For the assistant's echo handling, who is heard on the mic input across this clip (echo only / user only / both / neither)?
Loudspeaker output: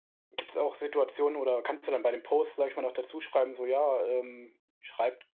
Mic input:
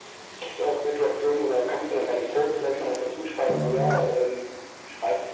both